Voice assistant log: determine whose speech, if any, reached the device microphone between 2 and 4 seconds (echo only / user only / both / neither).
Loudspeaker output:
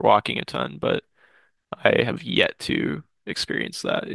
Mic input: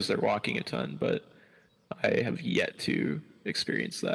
echo only